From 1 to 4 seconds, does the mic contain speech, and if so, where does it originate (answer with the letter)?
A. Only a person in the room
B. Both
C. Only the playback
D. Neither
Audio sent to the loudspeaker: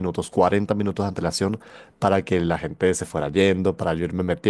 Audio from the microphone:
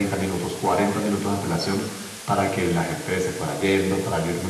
C